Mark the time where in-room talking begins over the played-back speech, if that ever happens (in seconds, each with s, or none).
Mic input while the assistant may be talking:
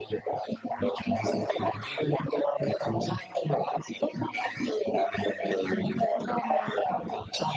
6.1 s